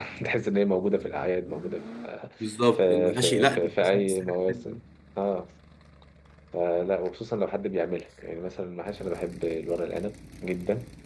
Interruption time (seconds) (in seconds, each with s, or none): 2.8 s